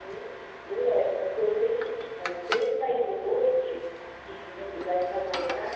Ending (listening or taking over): listening